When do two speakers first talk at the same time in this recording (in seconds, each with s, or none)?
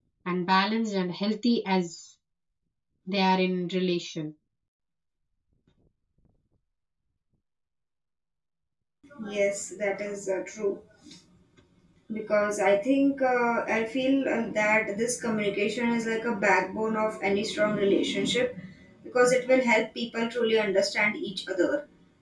none